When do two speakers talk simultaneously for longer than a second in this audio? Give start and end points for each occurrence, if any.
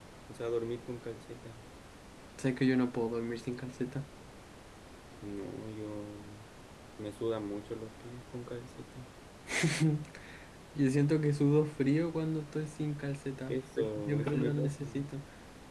13.5-14.8

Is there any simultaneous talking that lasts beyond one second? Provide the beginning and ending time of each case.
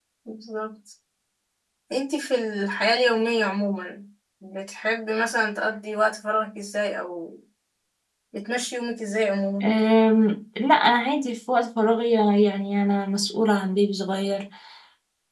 none

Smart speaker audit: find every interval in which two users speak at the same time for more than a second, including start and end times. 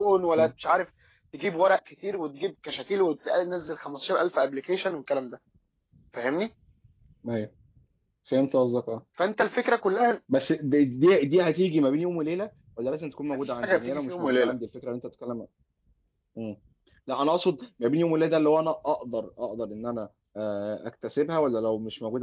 13.3-14.5

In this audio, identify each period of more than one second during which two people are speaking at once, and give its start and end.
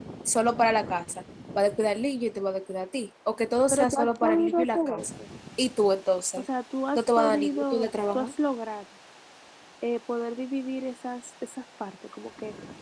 3.7-5.1, 7.0-8.3

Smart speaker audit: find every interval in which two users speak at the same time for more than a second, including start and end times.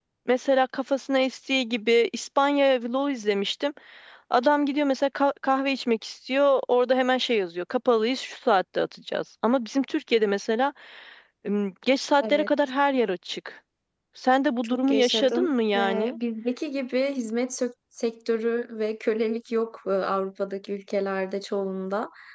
14.6-16.2

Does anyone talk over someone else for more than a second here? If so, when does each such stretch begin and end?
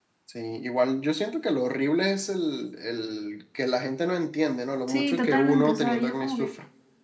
4.9-6.5

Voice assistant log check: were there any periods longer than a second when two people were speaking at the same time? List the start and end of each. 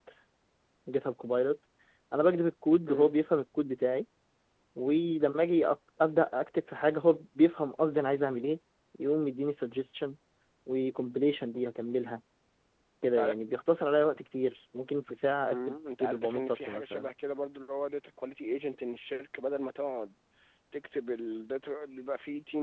15.5-17.1

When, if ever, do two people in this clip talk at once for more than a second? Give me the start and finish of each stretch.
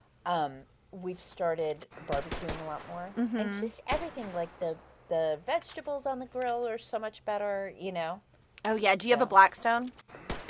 none

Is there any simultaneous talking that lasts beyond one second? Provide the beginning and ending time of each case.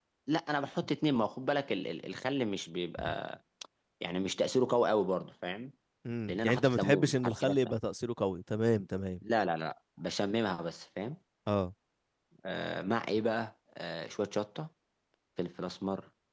6.3-7.8

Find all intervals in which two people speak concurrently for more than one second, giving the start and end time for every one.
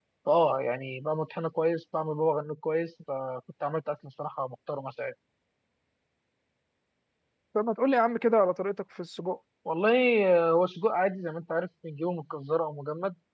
none

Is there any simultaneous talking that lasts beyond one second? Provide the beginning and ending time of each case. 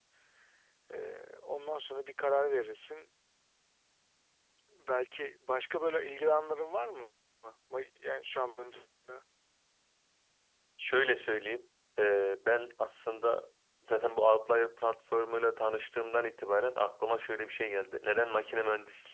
none

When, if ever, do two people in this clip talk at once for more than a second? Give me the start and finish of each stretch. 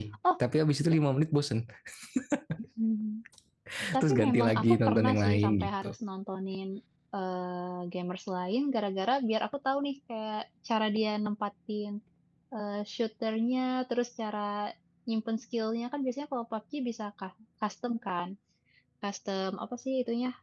4.0-5.9

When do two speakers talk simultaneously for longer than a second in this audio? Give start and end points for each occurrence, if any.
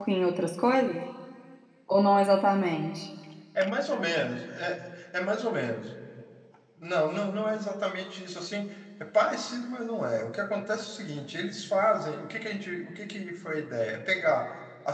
none

